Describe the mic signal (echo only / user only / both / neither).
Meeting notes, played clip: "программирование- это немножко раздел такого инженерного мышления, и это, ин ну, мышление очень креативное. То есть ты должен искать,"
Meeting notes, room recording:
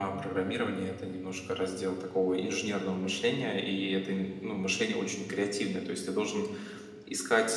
echo only